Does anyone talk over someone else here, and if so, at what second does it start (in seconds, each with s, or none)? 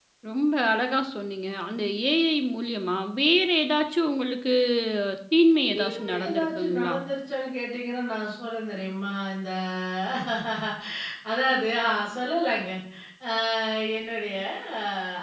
5.6 s